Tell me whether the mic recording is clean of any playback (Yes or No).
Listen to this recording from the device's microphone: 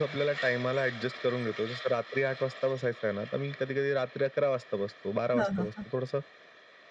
No